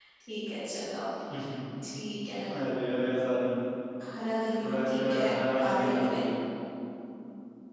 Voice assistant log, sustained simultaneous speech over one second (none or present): present